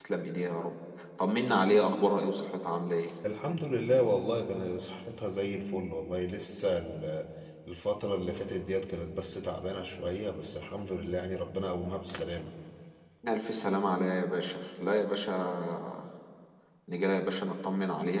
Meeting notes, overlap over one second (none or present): none